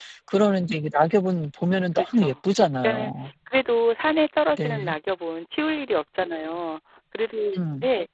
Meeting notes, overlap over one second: none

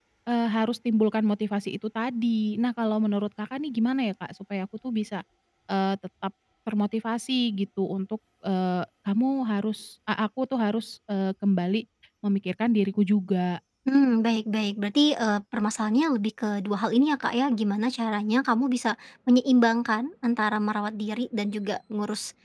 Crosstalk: none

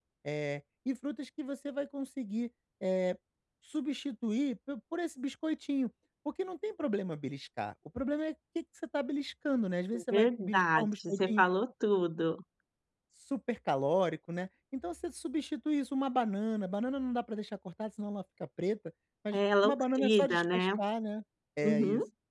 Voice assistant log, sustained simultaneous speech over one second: present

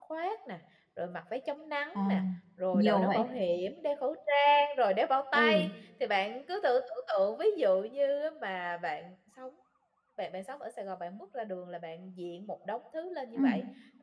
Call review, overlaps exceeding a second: none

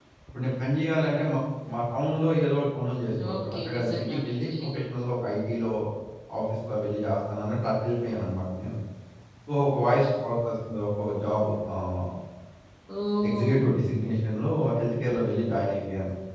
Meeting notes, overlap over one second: present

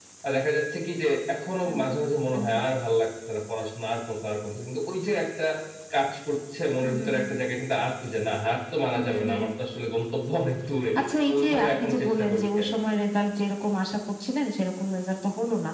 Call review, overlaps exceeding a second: present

